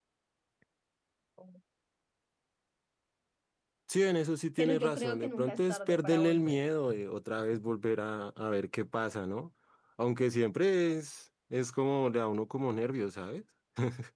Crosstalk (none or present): present